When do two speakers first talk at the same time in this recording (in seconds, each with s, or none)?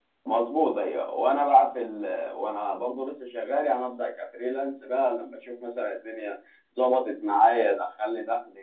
none